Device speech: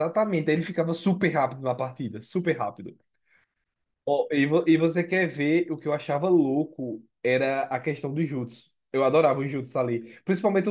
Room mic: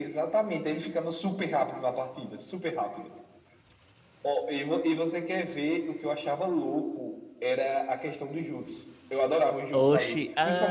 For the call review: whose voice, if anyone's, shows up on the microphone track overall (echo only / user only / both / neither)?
both